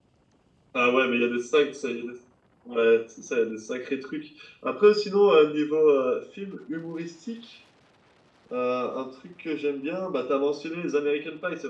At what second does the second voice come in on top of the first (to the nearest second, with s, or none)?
none